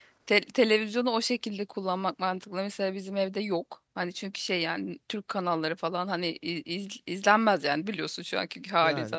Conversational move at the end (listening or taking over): listening